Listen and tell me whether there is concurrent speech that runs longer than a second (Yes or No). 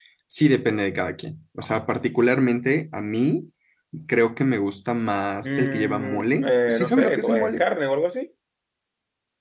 Yes